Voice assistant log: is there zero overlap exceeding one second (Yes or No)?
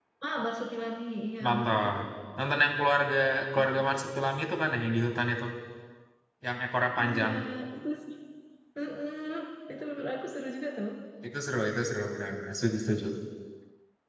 Yes